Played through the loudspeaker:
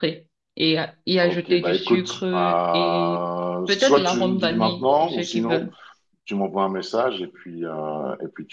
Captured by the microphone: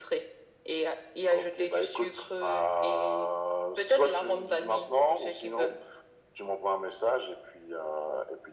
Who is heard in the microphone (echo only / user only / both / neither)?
echo only